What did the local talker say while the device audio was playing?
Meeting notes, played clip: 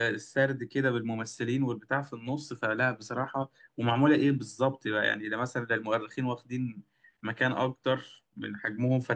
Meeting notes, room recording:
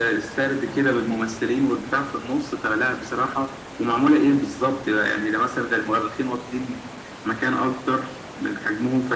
none

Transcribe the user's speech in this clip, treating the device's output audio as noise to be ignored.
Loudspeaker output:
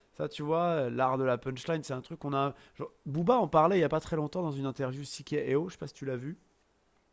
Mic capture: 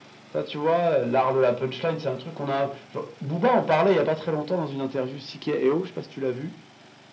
none

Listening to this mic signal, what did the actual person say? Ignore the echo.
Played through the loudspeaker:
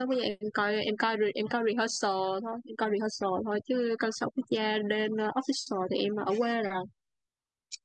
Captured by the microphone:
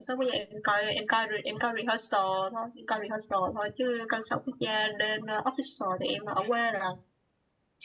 none

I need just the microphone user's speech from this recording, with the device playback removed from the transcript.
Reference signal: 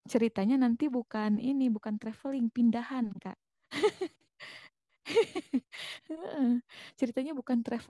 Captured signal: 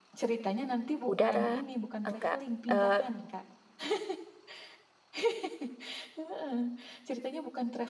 Udara enggak eh,

